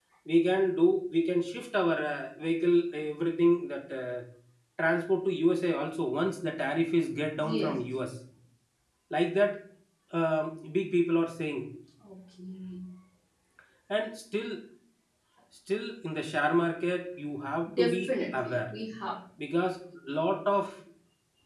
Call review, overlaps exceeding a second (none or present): none